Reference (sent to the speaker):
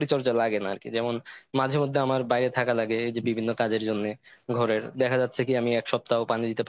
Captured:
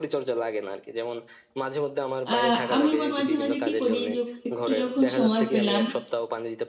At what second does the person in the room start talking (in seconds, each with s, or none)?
2.3 s